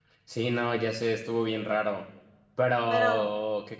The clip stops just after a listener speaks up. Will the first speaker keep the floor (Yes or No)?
Yes